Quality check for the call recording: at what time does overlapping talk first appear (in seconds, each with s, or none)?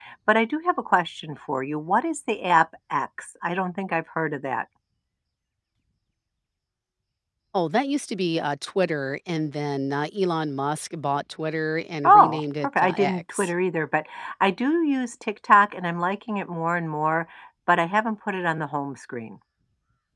12.0 s